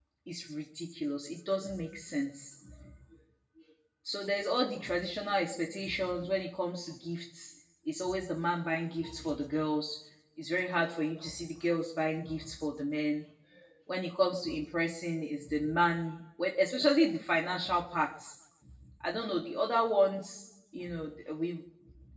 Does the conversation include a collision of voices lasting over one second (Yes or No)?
No